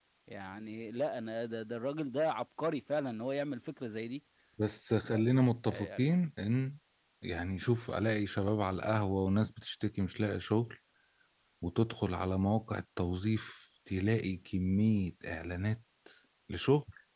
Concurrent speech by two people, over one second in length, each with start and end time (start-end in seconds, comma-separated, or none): none